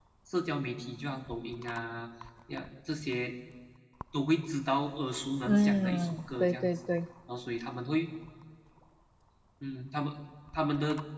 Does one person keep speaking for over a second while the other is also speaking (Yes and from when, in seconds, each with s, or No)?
Yes, from 5.5 s